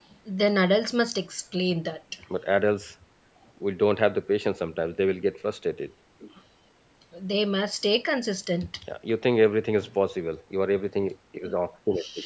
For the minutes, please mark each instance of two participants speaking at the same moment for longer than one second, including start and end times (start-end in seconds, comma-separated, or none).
none